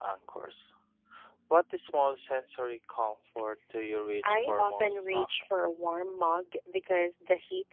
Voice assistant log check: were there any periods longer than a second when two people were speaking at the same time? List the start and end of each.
4.2-5.5

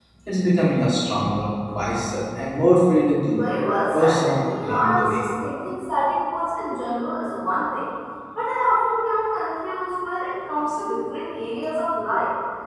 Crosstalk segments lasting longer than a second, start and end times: 3.9-5.2

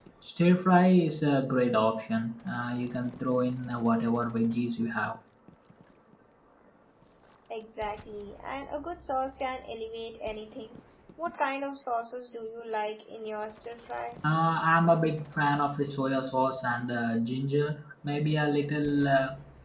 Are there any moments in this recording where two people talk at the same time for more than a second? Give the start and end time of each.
none

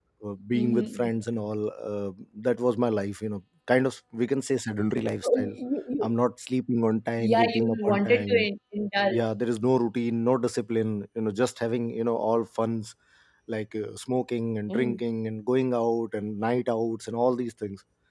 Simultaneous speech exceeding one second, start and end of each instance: 7.2-8.5

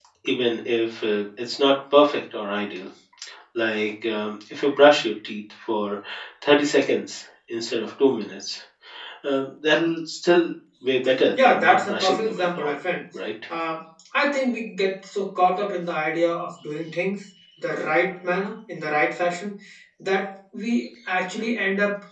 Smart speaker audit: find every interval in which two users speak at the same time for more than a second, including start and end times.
11.4-12.8

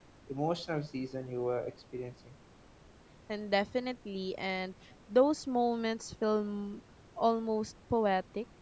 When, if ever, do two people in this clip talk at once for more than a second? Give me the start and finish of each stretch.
none

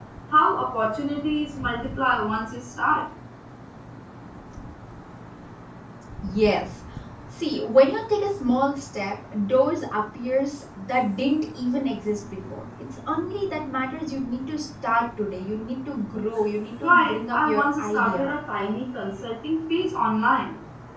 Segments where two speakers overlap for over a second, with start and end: 16.8-18.3

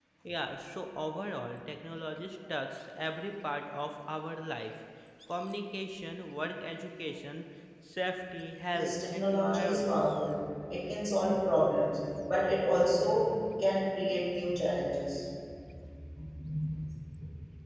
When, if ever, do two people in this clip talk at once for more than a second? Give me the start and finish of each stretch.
8.7-10.0

